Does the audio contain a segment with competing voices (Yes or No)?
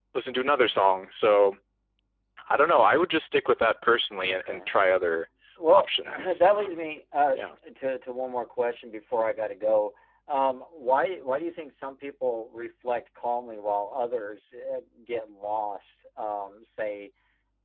Yes